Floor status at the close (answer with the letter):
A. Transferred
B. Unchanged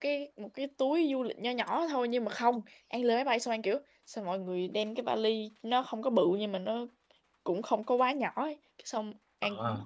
B